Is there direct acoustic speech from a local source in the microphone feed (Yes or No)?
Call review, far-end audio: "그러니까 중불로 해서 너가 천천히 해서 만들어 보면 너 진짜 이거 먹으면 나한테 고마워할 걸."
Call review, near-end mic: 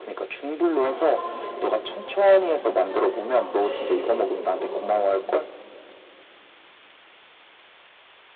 Yes